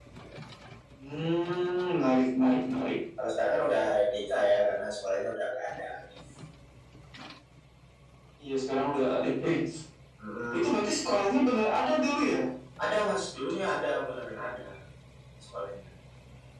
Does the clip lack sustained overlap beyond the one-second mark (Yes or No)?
Yes